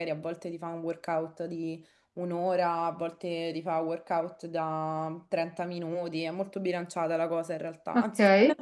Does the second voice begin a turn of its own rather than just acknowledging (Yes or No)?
No